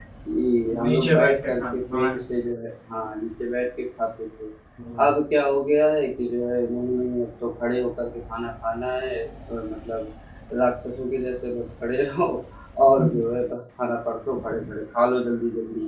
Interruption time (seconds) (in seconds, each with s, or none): 0.8 s